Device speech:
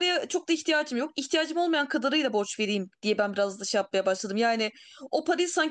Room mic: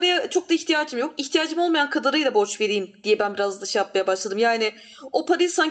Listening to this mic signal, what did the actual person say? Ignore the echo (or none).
none